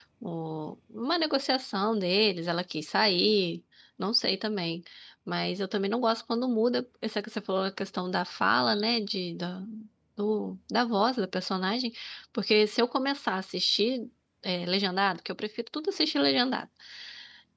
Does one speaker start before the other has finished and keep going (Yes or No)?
No